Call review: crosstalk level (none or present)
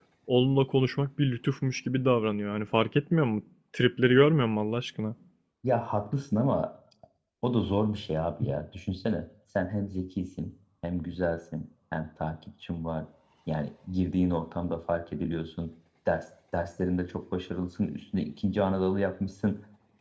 none